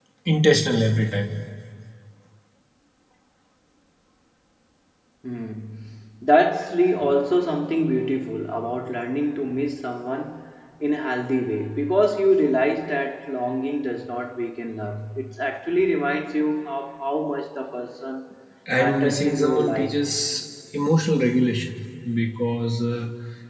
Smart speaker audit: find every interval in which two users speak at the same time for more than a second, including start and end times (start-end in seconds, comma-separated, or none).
18.8-20.0